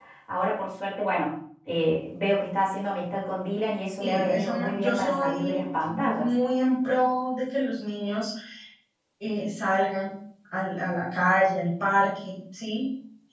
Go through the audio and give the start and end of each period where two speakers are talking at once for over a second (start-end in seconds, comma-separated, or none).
4.0-6.3